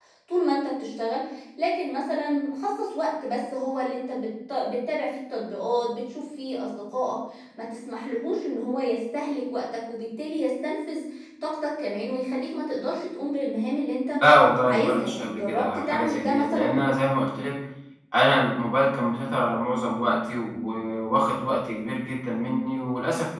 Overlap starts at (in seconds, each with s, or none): 14.7 s